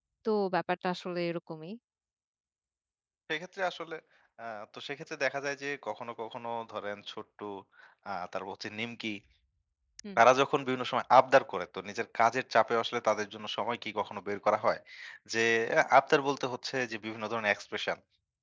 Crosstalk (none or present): none